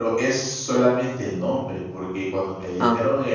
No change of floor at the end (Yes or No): Yes